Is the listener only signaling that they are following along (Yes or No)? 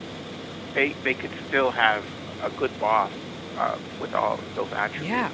No